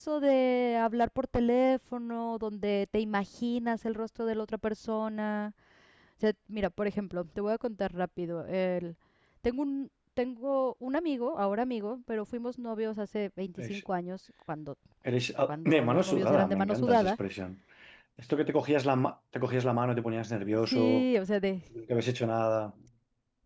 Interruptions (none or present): present